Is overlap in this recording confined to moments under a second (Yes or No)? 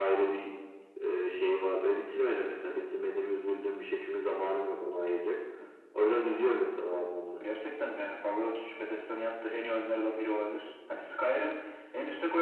Yes